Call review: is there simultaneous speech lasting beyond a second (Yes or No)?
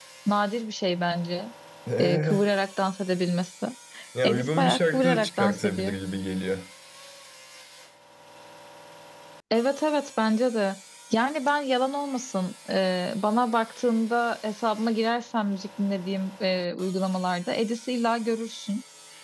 Yes